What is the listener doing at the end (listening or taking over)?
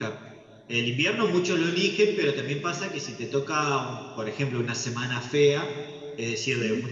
listening